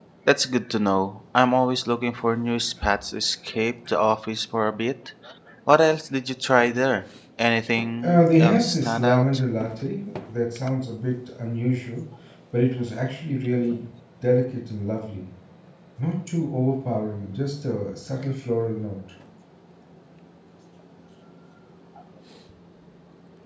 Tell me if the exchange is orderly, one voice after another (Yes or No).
No